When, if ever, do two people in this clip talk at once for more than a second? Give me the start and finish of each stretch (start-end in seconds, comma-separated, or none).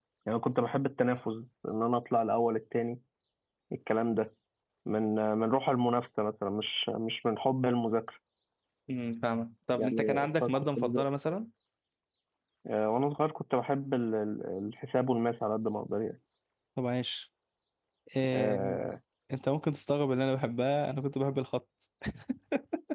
9.8-11.1